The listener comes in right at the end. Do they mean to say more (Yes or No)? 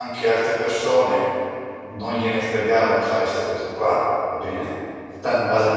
No